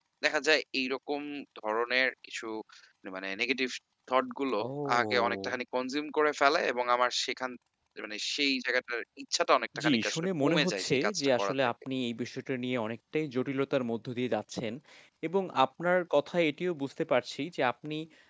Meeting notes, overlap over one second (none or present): present